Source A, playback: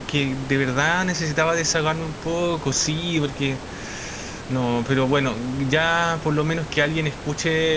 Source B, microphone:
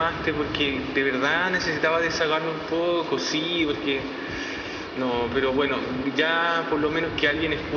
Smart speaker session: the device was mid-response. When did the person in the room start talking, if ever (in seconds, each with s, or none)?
none